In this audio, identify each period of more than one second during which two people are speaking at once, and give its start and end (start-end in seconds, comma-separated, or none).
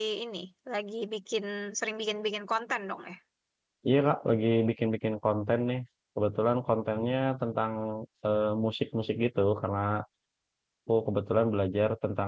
none